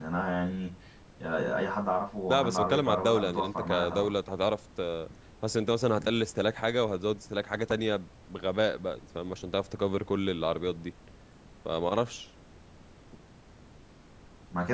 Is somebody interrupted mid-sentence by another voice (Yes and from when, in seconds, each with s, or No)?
Yes, from 2.3 s